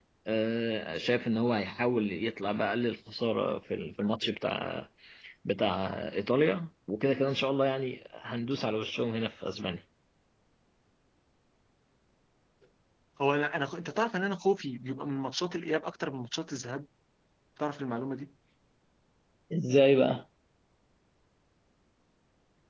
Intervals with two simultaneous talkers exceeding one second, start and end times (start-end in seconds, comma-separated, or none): none